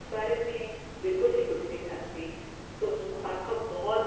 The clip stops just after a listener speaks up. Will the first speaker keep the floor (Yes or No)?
Yes